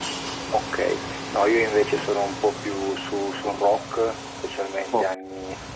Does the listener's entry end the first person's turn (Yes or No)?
No